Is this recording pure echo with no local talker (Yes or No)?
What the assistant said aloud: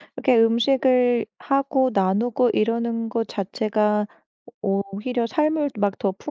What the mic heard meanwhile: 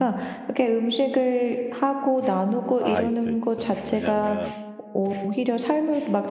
No